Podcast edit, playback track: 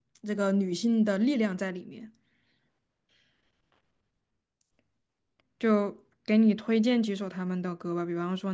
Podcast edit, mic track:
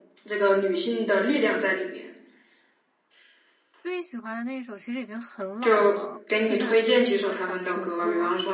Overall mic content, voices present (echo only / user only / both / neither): both